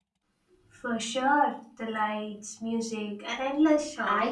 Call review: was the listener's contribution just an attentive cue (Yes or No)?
No